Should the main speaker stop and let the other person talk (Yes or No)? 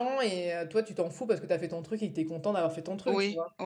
Yes